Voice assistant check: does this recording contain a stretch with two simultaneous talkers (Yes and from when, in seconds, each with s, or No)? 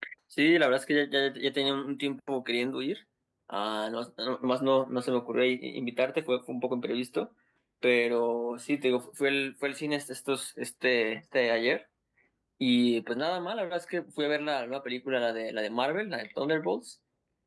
No